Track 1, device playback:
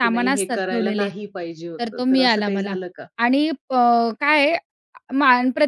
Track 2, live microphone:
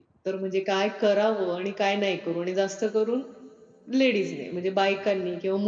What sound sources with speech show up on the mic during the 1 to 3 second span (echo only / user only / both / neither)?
user only